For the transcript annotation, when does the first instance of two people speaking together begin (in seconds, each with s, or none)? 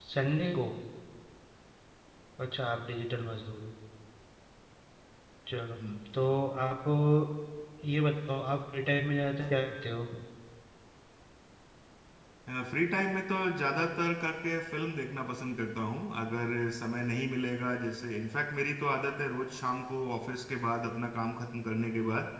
none